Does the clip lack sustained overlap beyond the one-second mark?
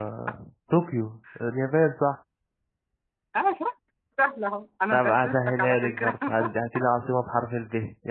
No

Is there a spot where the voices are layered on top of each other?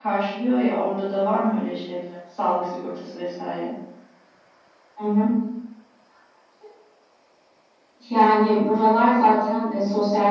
No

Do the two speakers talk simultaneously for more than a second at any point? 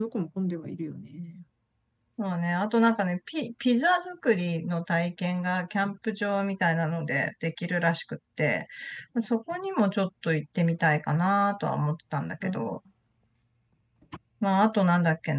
No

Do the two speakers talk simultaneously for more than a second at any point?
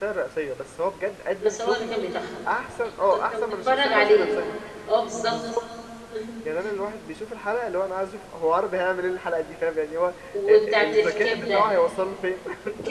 Yes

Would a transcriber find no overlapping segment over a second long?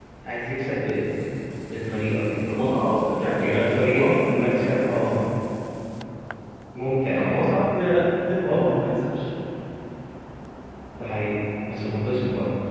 No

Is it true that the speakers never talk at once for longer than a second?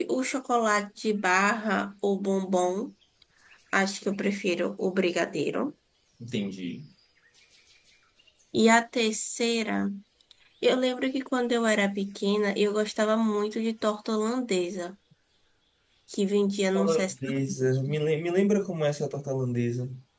No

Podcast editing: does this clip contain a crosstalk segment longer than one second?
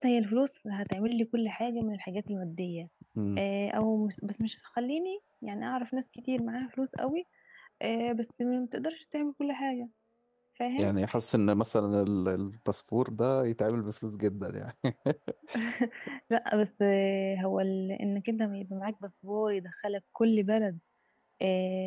No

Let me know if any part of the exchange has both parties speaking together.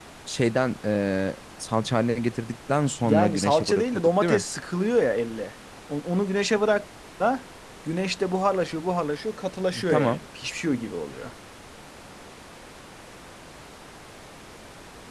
Yes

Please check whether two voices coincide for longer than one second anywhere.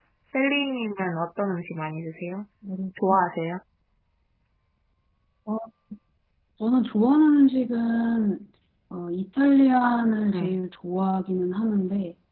No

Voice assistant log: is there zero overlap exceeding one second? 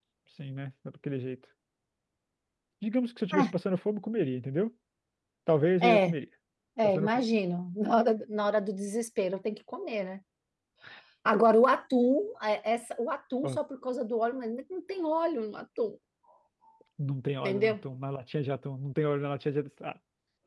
Yes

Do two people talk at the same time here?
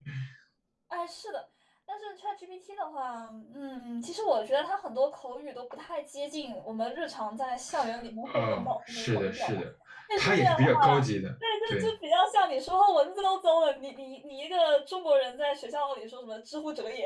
Yes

